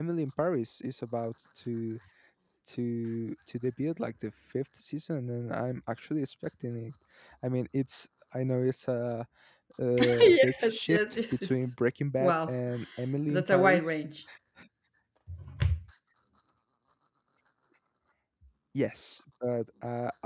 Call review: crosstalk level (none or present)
present